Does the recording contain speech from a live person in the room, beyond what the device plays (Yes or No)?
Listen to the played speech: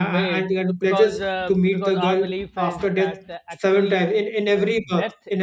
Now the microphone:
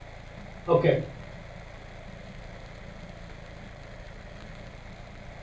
Yes